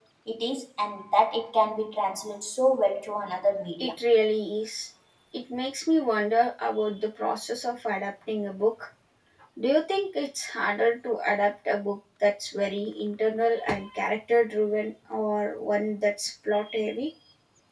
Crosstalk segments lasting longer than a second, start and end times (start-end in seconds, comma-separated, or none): none